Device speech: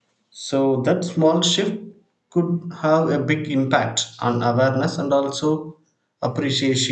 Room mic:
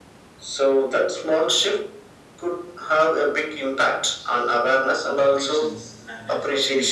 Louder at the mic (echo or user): echo